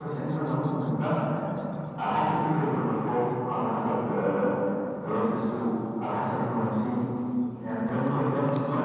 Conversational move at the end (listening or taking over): listening